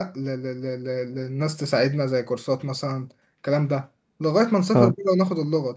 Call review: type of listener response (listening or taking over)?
listening